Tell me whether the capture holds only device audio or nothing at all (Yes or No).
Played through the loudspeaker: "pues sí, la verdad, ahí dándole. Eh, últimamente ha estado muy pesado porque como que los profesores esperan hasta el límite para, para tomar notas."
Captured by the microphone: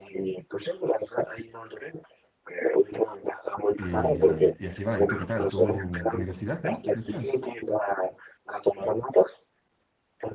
No